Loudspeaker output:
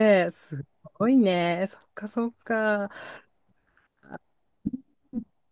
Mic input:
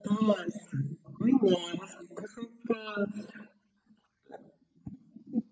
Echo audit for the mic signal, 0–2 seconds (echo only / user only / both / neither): echo only